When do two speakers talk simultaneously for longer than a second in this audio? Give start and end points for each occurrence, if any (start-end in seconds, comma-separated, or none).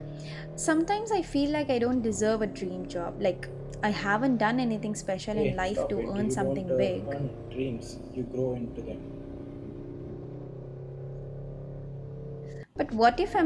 5.3-7.1